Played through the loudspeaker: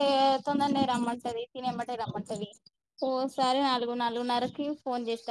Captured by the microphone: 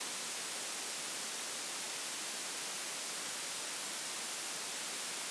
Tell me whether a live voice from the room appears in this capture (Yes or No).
No